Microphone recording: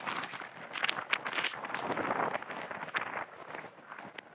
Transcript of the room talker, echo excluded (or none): none